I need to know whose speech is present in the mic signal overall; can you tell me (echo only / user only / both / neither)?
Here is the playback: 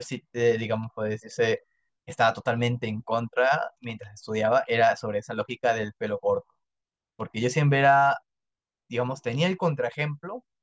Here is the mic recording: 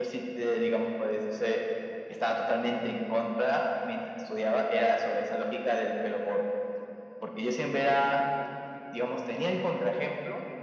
echo only